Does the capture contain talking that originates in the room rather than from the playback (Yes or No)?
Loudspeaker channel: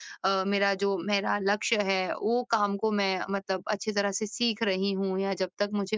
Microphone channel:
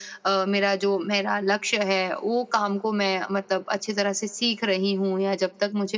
No